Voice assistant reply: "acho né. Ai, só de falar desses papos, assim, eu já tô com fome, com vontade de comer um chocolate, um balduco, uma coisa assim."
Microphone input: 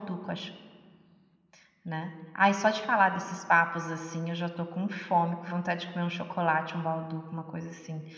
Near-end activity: none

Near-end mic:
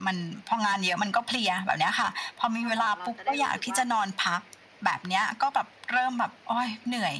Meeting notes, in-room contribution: present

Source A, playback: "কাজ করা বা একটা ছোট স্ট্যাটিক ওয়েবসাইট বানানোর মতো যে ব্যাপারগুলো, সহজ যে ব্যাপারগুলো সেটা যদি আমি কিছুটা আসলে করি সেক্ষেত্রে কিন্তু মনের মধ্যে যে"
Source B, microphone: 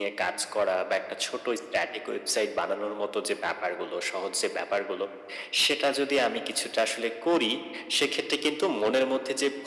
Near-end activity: none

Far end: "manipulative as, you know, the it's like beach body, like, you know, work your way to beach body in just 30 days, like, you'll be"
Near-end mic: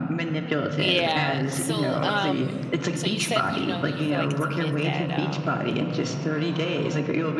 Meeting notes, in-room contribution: present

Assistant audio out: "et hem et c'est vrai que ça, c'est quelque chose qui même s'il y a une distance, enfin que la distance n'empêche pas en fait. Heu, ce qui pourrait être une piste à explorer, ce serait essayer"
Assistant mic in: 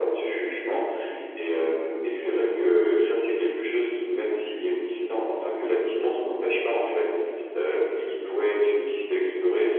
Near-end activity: none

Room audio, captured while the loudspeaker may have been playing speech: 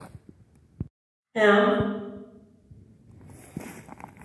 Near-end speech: present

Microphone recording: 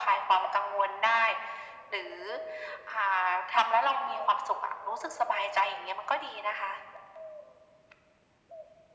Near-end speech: none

